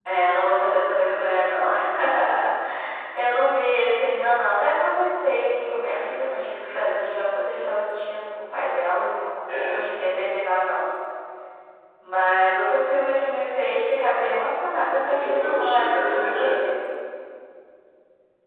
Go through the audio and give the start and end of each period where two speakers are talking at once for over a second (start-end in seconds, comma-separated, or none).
15.1-16.6